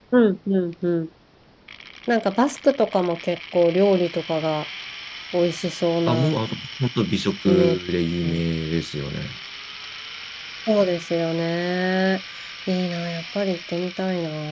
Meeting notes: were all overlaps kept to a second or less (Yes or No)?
Yes